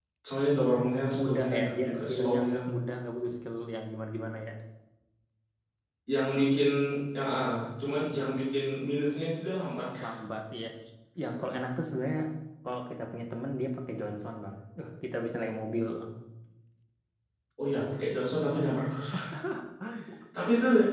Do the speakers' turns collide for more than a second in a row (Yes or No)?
Yes